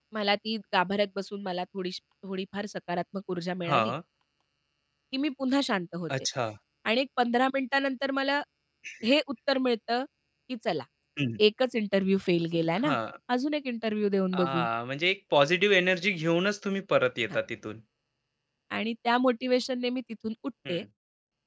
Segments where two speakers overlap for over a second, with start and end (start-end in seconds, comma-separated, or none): none